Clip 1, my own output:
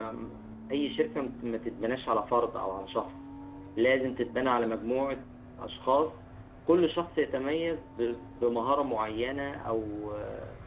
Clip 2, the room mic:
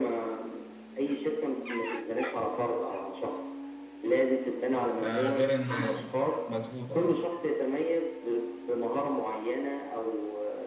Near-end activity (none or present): present